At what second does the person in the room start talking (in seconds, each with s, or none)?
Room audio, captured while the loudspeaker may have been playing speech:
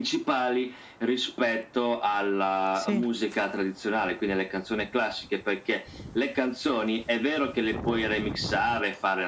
2.7 s